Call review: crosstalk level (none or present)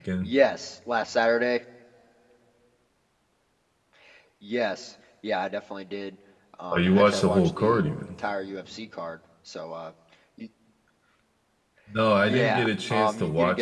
present